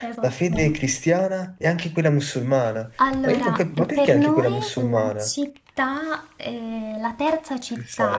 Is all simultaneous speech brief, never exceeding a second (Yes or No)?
No